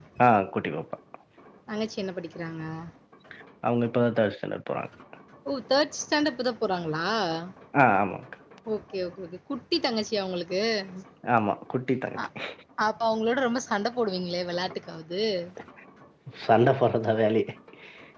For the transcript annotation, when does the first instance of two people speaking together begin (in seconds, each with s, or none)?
none